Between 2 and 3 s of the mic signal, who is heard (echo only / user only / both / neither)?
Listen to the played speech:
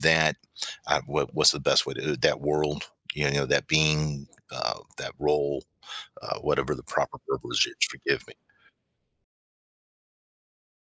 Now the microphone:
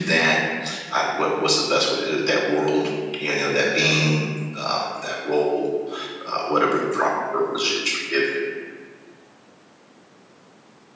echo only